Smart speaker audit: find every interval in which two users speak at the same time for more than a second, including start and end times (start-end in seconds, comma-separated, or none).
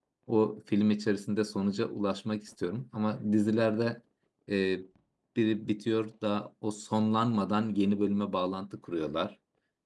none